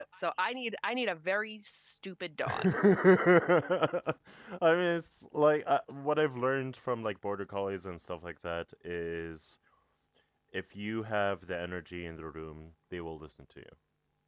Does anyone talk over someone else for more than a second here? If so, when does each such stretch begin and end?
none

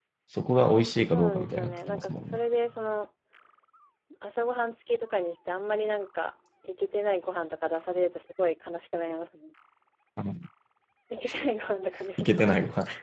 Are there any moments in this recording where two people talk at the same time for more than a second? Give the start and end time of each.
1.1-2.4

